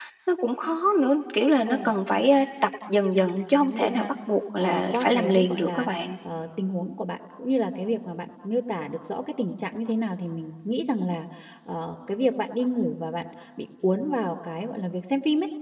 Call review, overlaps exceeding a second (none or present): present